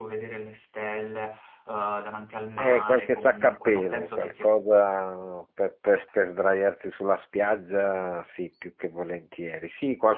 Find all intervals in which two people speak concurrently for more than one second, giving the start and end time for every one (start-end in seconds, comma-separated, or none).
2.6-4.5